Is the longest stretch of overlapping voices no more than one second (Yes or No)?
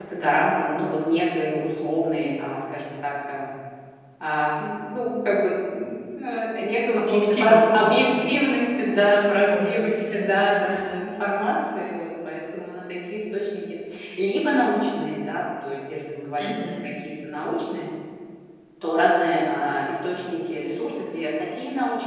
No